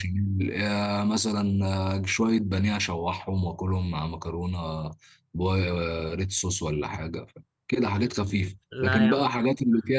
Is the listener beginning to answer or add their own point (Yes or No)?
No